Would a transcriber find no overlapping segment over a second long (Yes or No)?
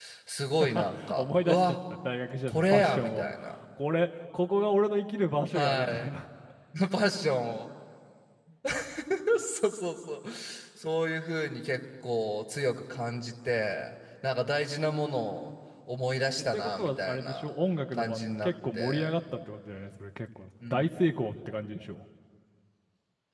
No